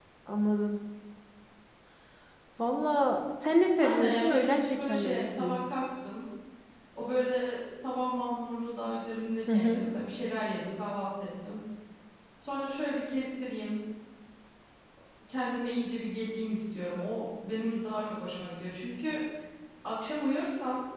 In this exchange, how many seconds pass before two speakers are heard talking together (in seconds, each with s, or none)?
3.8 s